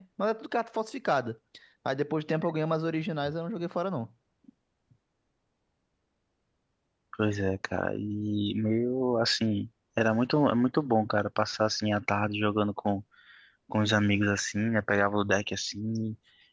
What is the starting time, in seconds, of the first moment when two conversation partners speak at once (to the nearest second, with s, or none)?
none